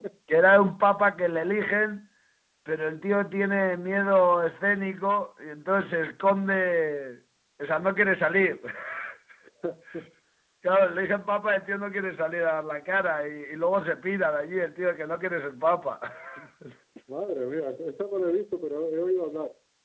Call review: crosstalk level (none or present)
none